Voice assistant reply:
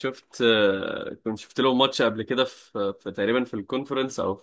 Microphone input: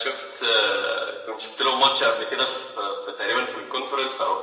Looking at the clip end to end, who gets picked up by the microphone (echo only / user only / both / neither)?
echo only